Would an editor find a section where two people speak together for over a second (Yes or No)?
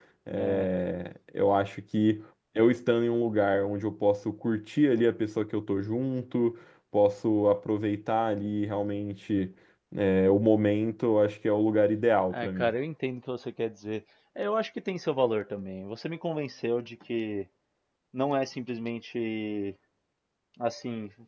No